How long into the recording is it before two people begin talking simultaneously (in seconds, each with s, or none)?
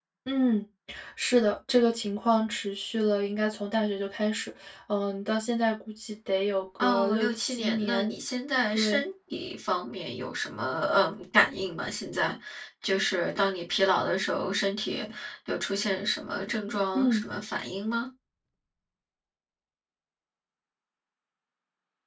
6.8 s